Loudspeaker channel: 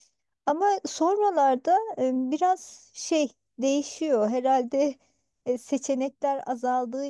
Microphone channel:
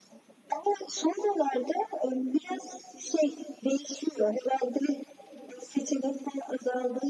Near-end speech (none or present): none